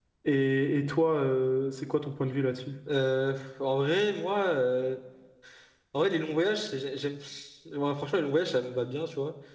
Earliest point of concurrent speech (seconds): none

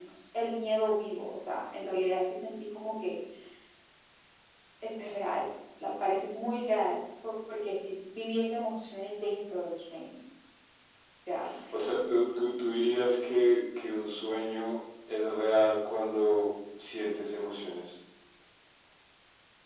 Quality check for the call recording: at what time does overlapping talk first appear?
none

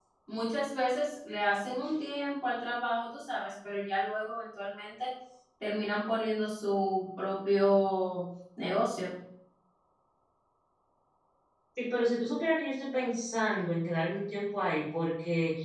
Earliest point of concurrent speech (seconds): none

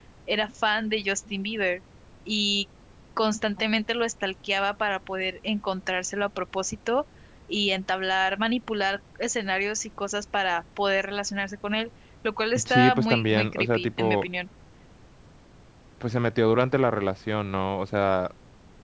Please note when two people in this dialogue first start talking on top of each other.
12.6 s

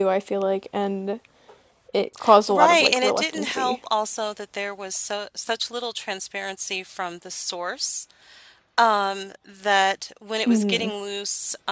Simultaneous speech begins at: 2.5 s

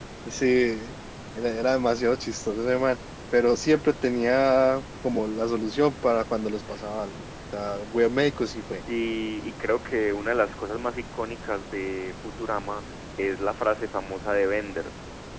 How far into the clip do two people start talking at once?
none

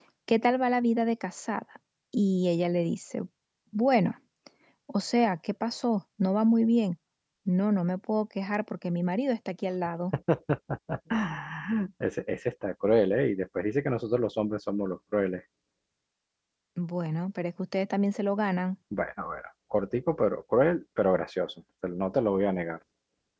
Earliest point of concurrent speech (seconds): none

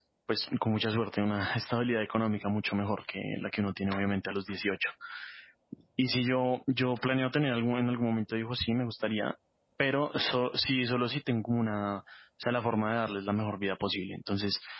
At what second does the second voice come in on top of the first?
none

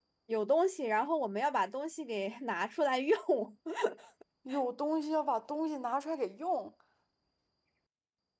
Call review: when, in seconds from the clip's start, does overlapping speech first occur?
none

